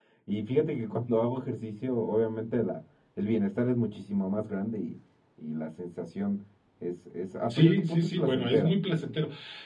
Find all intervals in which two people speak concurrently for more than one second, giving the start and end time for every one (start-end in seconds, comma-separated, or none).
7.5-8.7